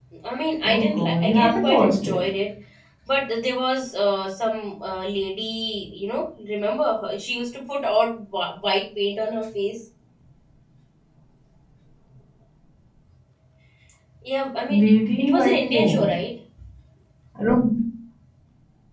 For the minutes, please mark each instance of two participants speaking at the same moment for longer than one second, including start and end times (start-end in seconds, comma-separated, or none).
0.6-2.2, 14.7-16.1